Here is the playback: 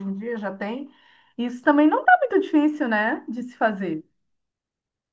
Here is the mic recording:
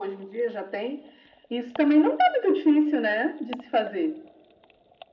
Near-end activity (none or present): none